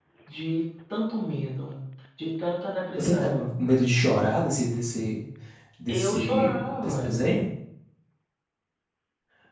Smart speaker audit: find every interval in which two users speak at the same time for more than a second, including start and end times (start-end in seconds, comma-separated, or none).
5.9-7.2